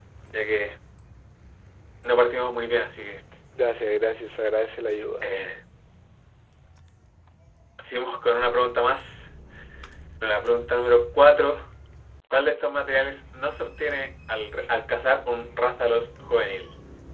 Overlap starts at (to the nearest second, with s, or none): none